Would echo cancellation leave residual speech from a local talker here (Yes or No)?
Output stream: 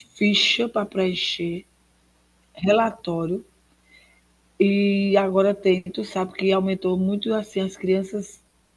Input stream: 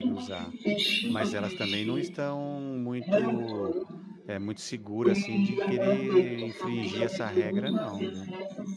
Yes